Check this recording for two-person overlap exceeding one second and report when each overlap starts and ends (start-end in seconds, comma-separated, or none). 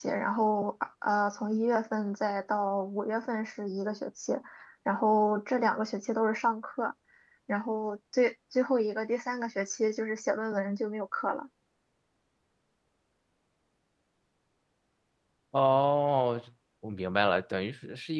none